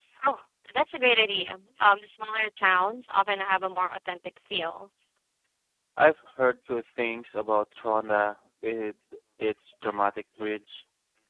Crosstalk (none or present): none